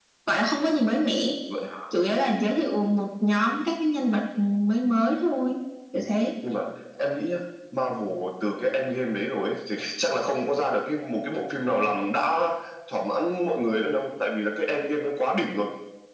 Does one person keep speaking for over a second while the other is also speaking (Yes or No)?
No